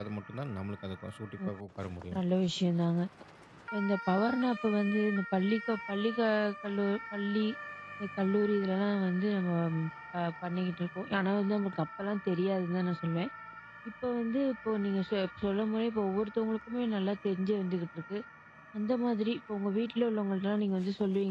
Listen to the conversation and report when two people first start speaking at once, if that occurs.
none

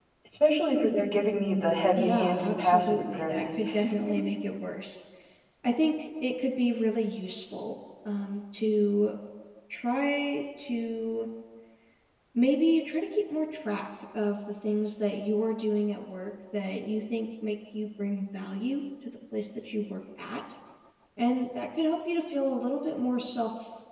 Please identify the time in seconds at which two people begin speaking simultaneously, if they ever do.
2 s

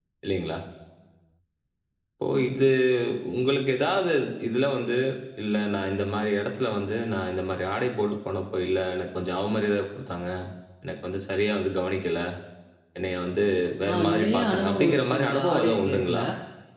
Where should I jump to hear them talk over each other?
14 s

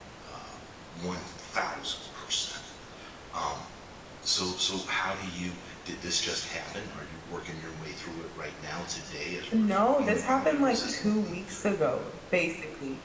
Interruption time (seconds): 10 s

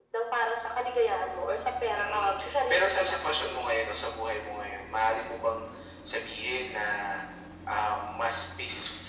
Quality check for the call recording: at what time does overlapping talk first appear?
2 s

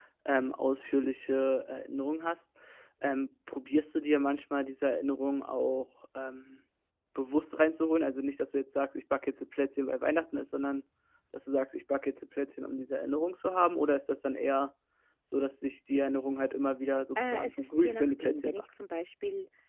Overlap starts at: 17 s

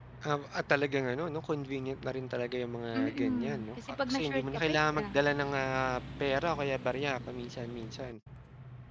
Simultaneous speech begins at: 3 s

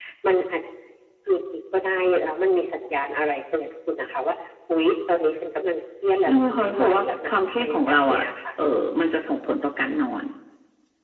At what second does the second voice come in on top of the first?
6 s

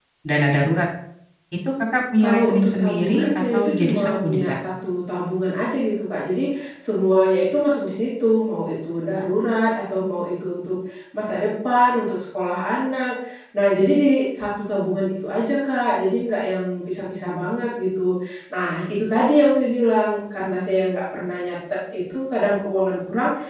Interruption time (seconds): 2 s

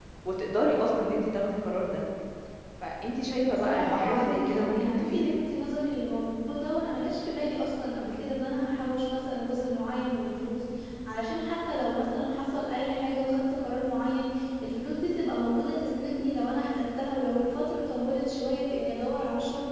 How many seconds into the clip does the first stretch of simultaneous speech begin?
3 s

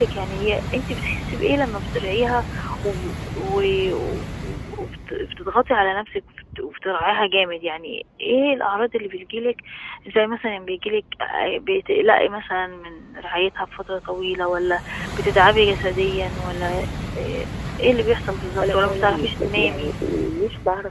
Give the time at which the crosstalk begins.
19 s

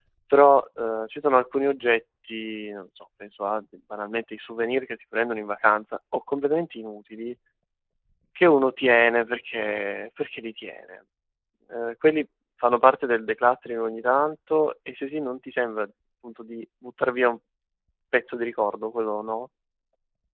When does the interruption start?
none

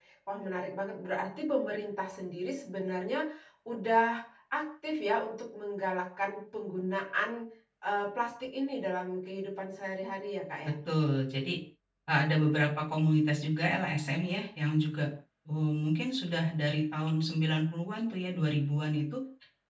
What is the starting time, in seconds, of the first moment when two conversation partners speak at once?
none

